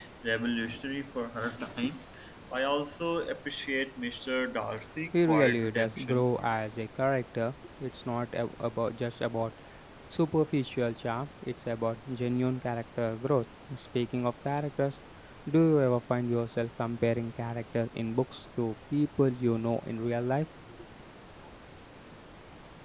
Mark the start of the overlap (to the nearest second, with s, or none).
5 s